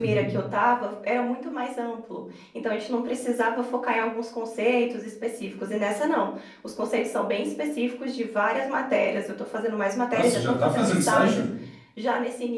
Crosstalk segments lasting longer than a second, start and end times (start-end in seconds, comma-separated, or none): 10.1-11.4